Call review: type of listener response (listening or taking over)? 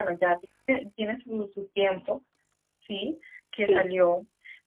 listening